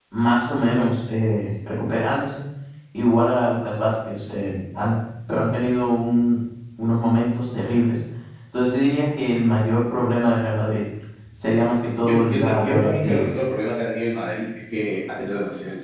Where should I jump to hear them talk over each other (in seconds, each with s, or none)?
12.0 s